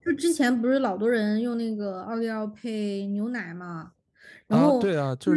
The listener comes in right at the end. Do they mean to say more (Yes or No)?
Yes